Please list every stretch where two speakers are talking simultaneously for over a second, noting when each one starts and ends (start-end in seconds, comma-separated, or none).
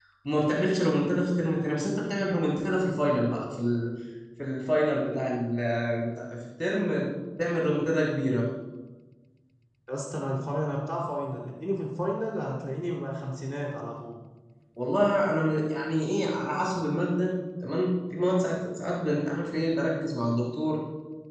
none